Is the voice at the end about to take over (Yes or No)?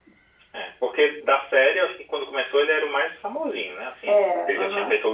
No